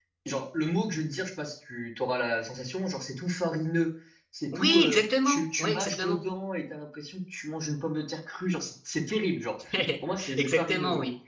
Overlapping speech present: Yes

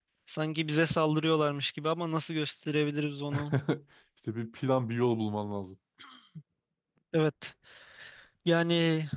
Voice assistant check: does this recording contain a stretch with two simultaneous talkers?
No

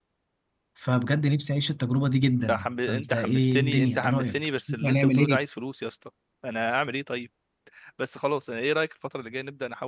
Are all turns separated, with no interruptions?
No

